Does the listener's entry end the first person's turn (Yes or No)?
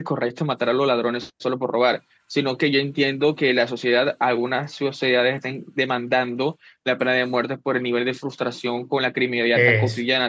No